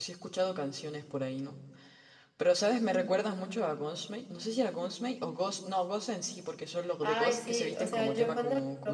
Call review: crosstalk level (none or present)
present